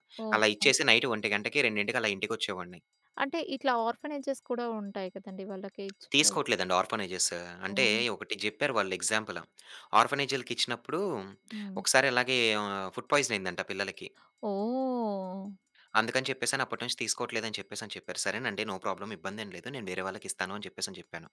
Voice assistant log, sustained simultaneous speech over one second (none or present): none